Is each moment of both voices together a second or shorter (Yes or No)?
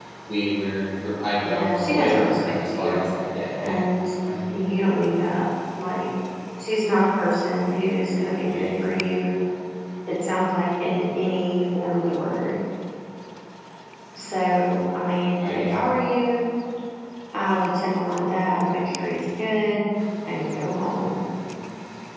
No